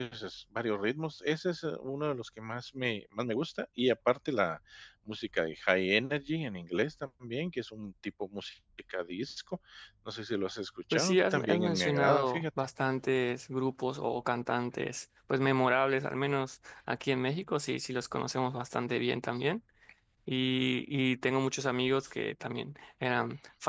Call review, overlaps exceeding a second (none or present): present